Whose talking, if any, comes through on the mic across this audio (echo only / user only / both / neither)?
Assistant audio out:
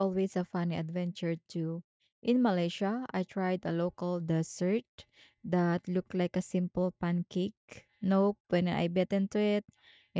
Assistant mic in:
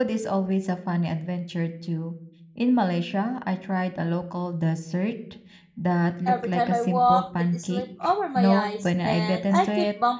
both